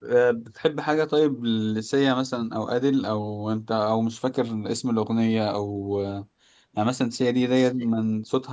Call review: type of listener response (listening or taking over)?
listening